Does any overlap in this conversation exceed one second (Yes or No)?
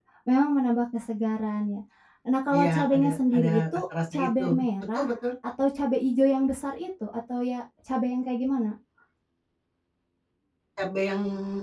Yes